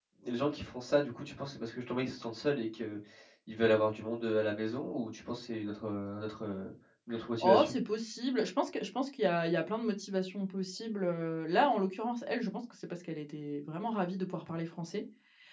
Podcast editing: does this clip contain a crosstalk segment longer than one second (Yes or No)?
No